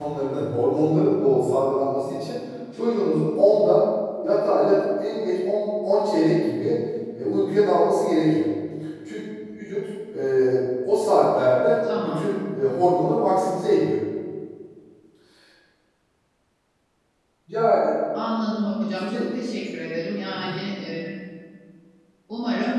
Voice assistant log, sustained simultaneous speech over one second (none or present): none